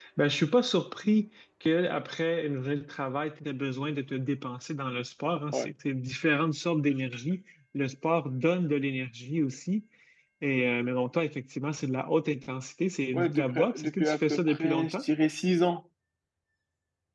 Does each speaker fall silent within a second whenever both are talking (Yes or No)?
No